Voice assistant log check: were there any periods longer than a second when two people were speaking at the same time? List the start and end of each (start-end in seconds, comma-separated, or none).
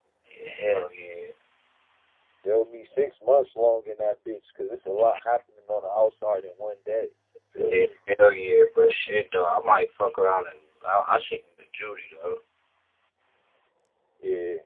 none